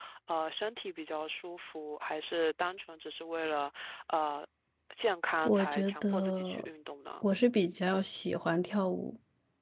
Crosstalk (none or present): present